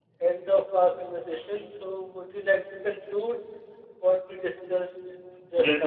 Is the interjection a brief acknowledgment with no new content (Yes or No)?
No